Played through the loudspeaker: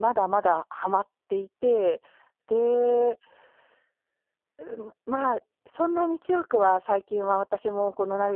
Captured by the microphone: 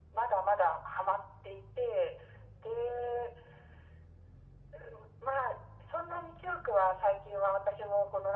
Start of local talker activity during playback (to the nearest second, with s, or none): none